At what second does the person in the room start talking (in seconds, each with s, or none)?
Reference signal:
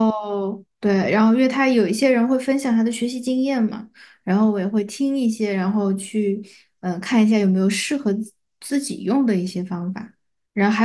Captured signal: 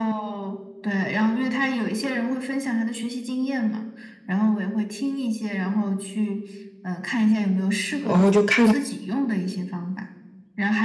8.0 s